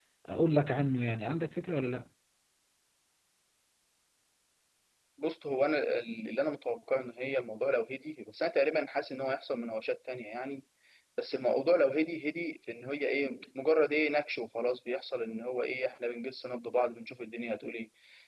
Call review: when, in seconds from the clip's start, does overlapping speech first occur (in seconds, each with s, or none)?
none